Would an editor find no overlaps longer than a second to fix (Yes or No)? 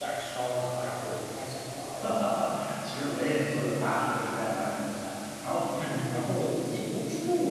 Yes